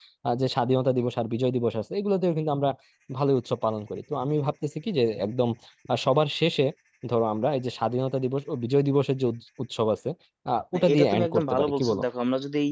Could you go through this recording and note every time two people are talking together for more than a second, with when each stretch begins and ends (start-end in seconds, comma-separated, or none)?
10.7-12.0